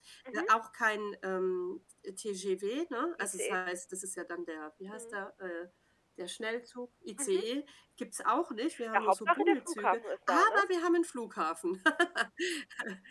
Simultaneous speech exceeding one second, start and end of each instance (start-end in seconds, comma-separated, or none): 8.9-10.6